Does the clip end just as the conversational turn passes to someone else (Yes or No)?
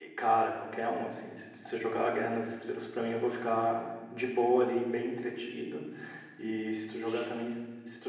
No